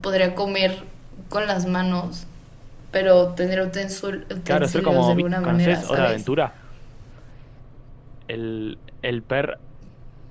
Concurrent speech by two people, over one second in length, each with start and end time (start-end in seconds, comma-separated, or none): 4.5-6.2